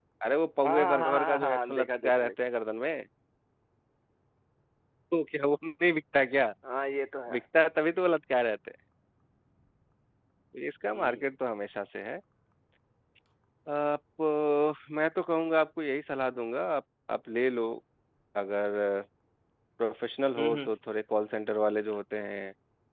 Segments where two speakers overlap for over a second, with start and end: 0.6-2.3

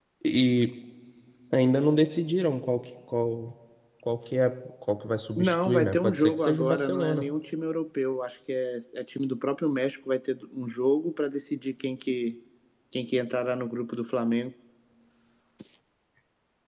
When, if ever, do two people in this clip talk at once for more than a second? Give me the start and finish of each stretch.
5.4-7.2

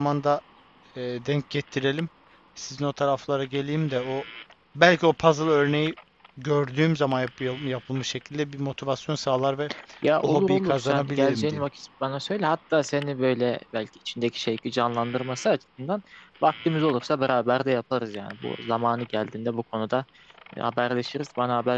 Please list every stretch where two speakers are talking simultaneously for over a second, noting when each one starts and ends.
10.2-11.6

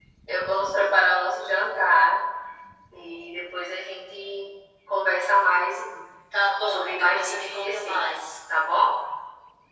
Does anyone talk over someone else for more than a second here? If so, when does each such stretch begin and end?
6.6-8.2

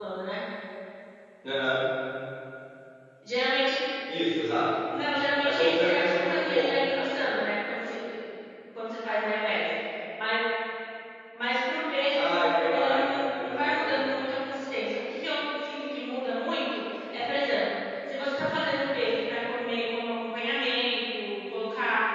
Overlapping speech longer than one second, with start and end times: 5.4-6.7, 12.2-14.0

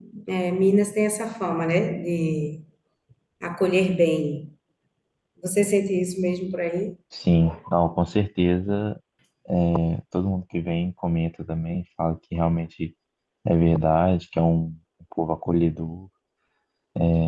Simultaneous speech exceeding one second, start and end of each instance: none

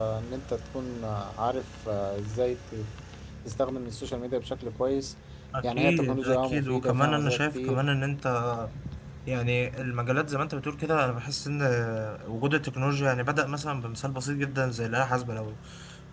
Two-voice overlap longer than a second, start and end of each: 5.6-7.8

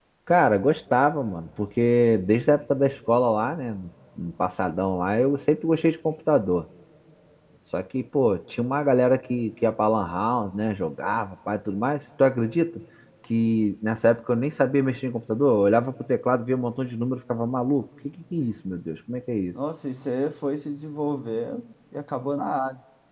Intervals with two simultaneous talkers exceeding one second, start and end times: none

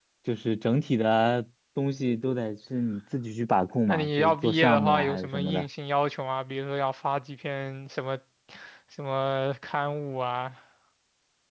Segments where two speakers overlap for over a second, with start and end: 3.9-5.6

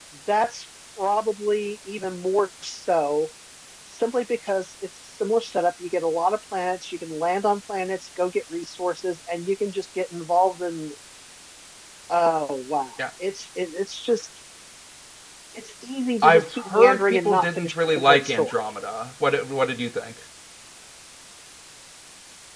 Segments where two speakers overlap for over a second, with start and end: 16.2-18.5

